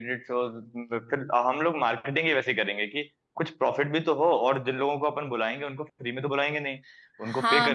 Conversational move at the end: taking over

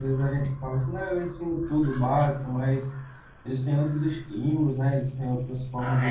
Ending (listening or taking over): taking over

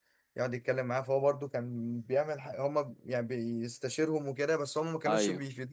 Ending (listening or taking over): listening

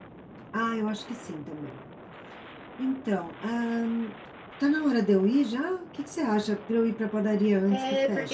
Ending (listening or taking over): taking over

